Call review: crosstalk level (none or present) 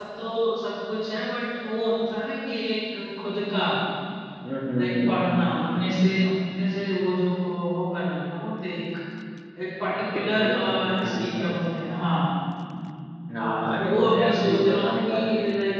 present